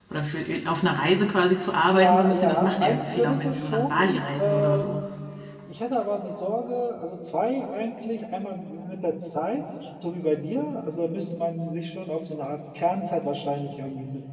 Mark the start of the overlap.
2 s

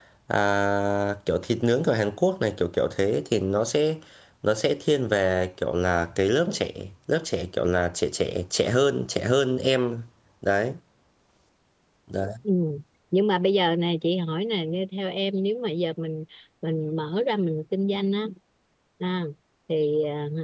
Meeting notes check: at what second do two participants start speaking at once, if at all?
none

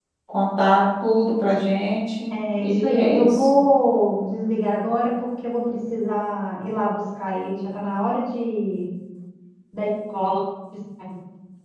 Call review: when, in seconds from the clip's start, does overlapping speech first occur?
2 s

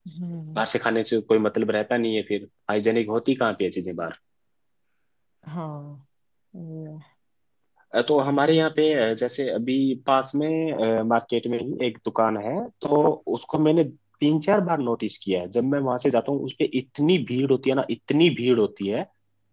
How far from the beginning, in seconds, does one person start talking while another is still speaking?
none

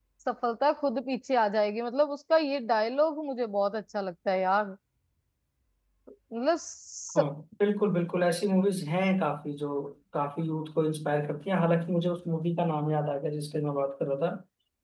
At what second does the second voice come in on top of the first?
none

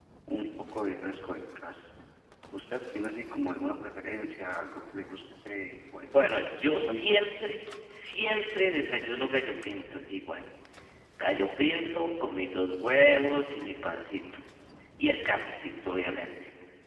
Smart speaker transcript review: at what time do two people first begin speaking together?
6 s

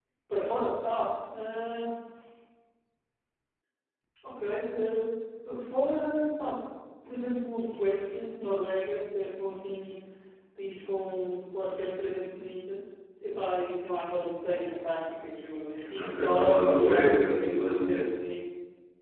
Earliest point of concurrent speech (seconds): 16 s

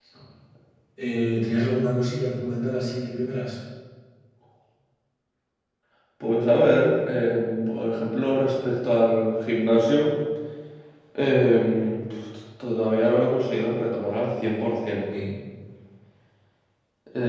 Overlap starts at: none

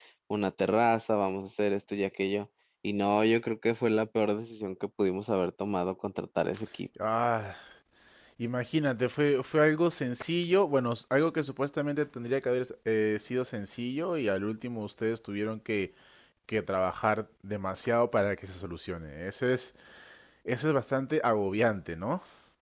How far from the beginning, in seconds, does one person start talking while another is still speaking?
none

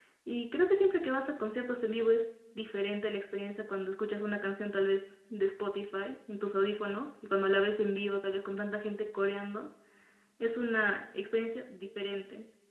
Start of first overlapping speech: none

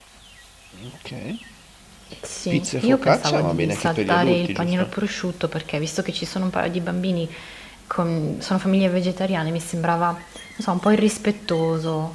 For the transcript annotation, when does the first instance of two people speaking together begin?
3 s

